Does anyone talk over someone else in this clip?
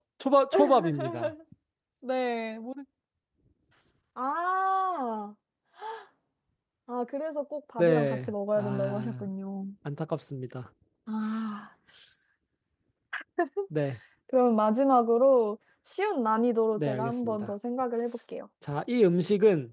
Yes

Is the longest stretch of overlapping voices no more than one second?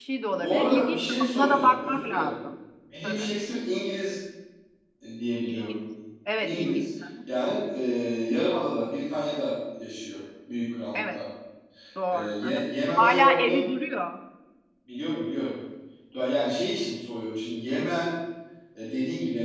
No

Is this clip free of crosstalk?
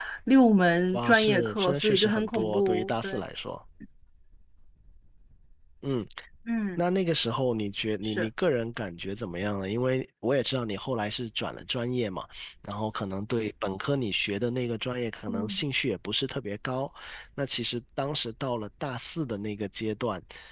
No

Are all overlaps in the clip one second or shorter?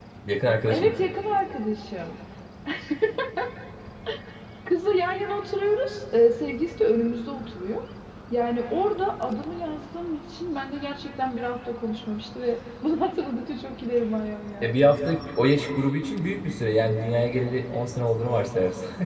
Yes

